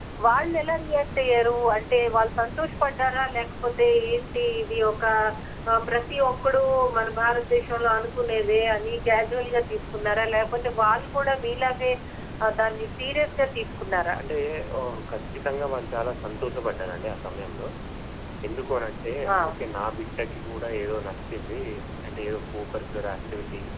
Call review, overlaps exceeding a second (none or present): none